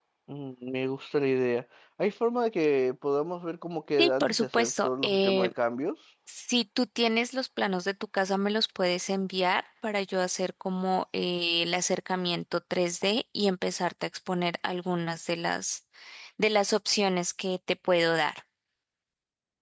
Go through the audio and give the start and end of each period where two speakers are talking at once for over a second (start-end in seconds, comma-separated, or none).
4.0-5.5